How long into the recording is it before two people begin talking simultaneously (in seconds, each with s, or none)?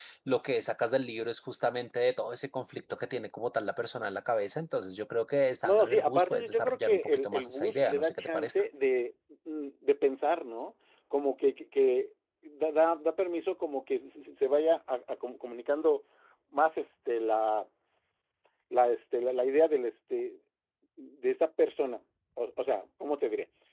5.6 s